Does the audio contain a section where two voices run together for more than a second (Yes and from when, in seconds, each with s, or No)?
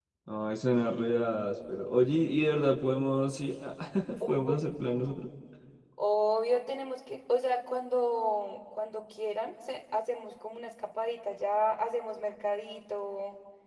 No